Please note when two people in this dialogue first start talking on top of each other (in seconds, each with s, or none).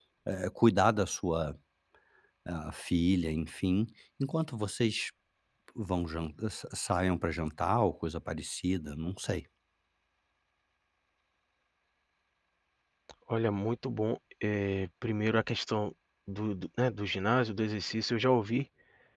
none